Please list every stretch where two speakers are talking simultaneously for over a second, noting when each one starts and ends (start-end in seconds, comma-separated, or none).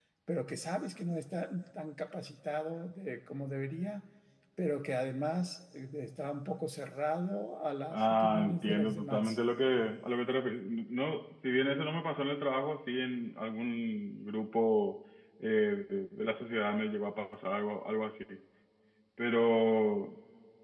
7.9-9.4